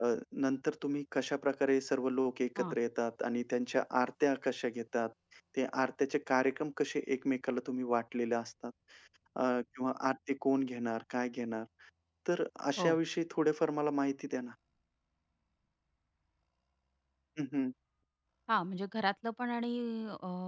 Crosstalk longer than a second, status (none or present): none